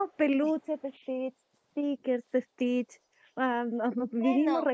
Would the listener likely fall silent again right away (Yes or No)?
Yes